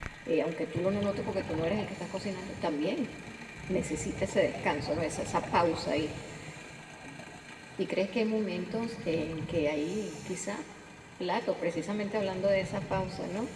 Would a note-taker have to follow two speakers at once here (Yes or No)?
No